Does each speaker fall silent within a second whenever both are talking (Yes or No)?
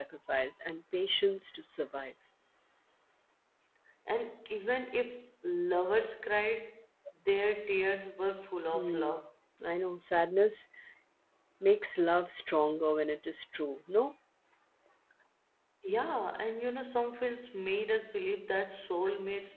Yes